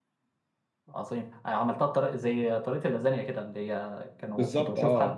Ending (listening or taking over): taking over